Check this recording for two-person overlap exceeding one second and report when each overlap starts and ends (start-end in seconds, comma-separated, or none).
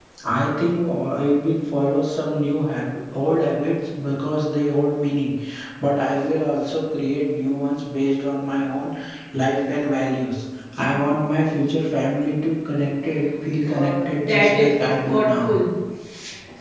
13.7-15.5